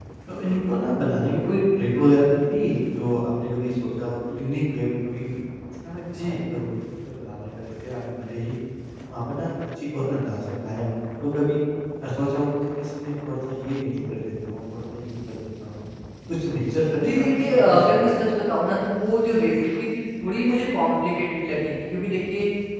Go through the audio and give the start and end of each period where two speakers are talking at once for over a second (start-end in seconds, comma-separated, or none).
17.0-18.3